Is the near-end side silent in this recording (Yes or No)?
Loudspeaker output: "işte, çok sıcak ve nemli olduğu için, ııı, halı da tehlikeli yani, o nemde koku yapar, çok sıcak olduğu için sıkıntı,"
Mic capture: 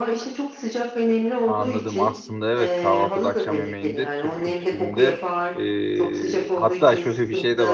No